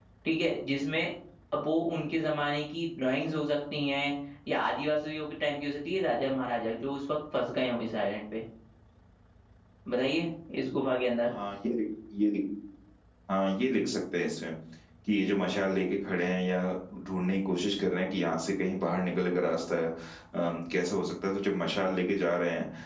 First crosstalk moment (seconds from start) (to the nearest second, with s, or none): none